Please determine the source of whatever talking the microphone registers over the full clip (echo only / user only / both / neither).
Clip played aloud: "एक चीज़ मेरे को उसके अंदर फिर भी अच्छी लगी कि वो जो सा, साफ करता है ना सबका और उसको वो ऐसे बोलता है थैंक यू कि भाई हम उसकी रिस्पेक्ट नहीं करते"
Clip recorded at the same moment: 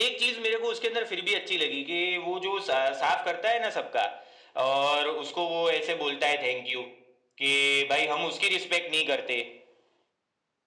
echo only